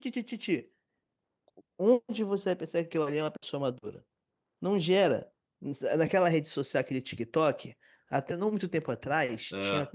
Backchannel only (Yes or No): Yes